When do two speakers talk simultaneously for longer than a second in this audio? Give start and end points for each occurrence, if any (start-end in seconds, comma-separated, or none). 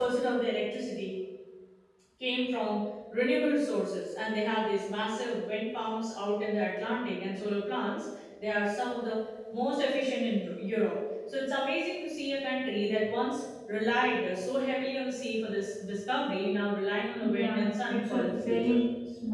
17.2-18.8